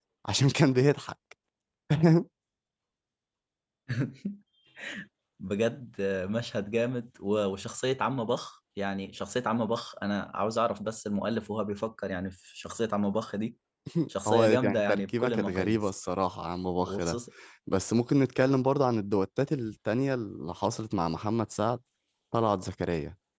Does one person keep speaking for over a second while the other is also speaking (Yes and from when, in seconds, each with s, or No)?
Yes, from 14.2 s